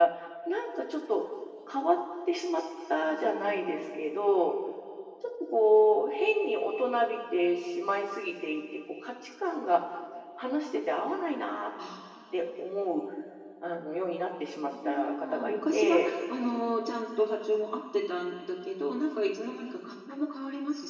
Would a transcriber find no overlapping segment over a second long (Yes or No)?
No